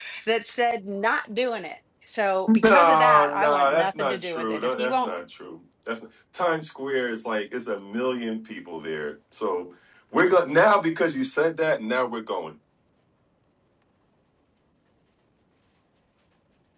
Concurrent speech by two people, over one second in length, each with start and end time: 2.5-5.1

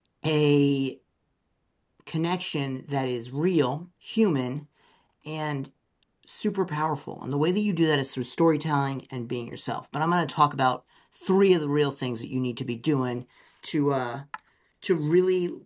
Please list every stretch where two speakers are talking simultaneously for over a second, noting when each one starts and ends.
none

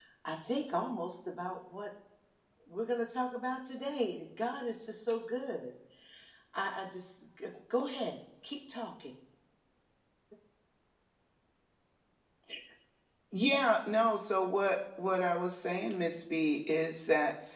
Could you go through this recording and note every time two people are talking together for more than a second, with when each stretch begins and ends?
none

